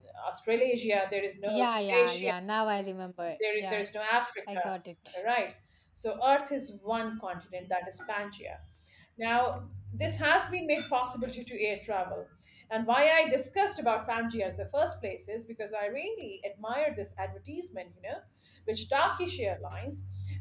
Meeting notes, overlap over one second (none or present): none